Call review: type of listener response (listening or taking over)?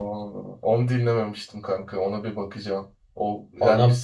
listening